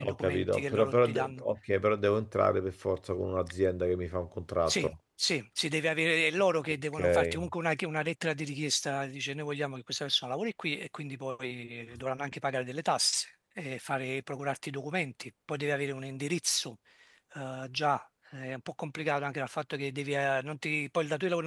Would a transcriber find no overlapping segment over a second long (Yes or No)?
No